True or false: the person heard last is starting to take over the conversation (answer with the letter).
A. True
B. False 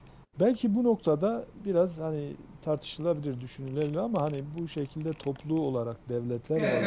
A